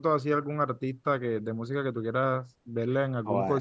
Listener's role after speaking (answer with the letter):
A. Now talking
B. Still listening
A